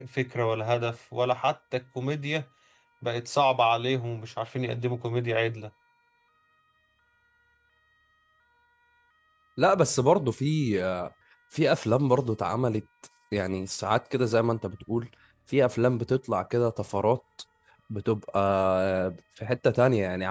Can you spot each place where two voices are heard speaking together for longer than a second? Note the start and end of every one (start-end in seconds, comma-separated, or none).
none